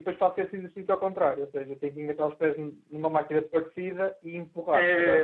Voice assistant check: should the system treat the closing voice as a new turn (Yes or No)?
Yes